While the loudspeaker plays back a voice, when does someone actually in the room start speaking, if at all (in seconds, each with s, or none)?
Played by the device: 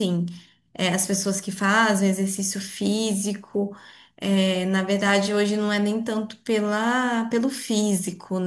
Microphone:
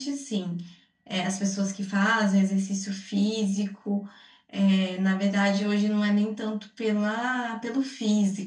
none